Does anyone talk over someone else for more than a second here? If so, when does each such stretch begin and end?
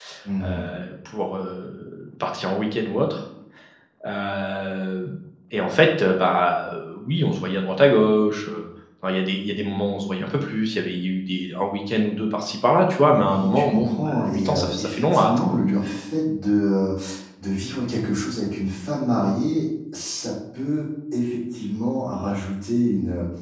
13.1-15.8

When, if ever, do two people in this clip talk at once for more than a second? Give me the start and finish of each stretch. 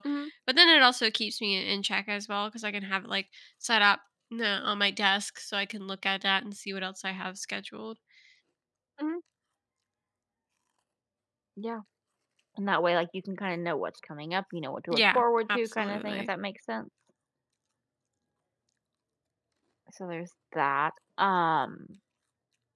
14.9-16.3

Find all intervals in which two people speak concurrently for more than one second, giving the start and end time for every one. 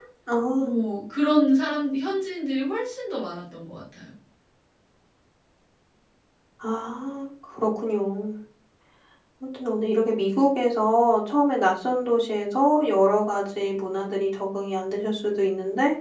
none

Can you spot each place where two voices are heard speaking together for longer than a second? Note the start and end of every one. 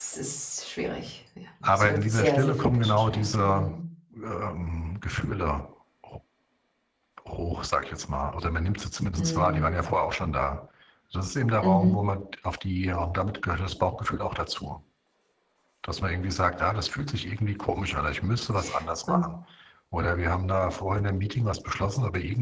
1.6-3.8

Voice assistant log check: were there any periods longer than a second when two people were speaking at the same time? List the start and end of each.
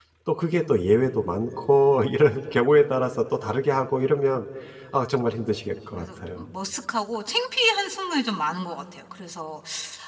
none

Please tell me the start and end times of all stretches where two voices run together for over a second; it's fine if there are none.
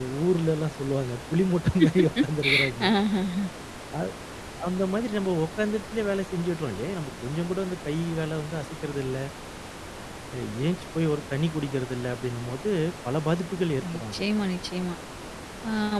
none

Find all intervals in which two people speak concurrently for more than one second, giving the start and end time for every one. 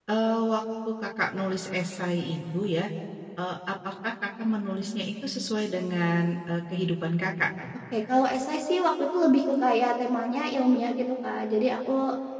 none

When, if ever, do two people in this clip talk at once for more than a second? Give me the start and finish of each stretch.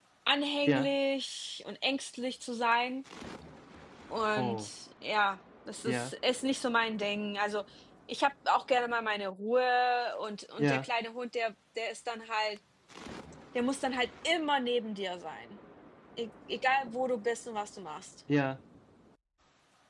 none

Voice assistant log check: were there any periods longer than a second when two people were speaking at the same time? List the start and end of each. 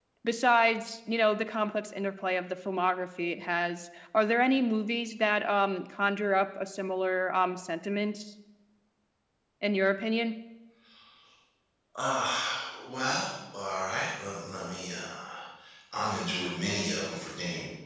none

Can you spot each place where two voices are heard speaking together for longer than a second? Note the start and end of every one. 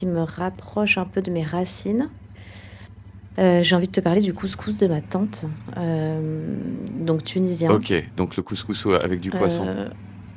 none

